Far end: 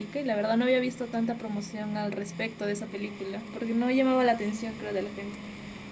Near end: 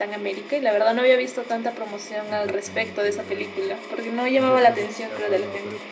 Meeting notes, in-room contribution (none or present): present